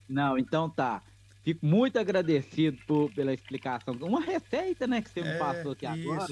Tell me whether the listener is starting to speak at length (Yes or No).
Yes